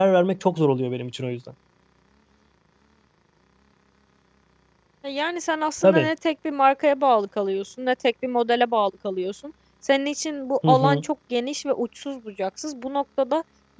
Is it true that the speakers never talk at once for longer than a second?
Yes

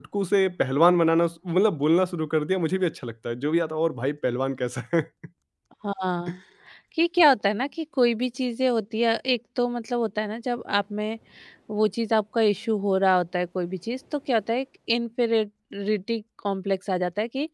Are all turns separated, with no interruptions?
Yes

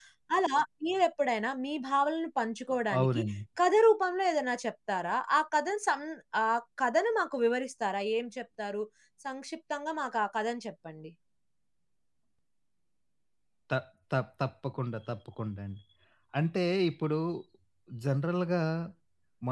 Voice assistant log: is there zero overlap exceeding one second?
Yes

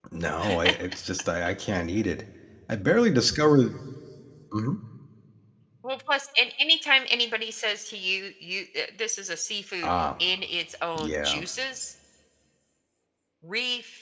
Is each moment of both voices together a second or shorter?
Yes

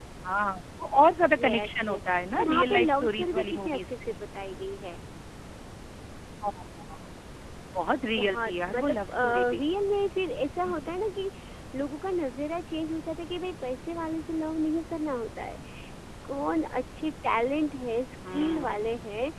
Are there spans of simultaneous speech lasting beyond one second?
Yes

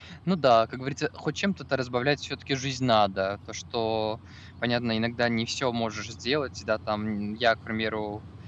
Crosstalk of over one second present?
No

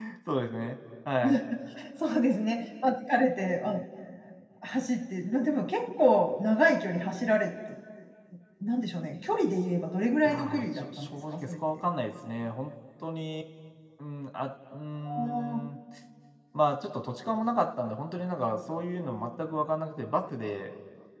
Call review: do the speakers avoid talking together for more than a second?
No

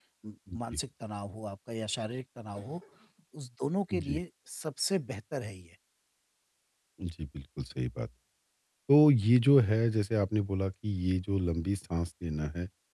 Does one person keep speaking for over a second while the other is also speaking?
No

